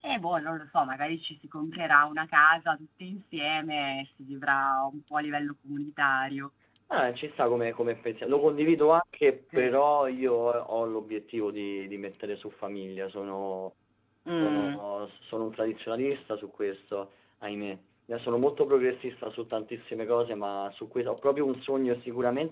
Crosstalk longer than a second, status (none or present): none